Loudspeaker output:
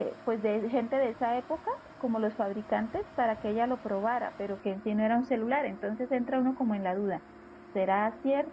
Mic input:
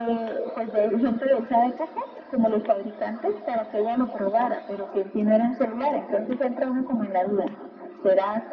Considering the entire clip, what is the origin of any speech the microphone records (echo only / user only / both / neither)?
echo only